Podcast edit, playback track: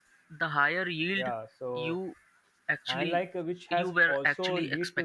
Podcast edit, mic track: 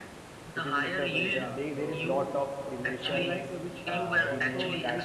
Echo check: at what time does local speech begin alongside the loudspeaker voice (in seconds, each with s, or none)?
0.5 s